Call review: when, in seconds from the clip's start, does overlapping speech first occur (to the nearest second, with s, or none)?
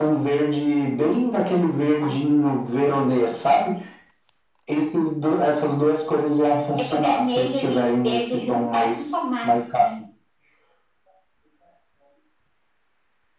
7 s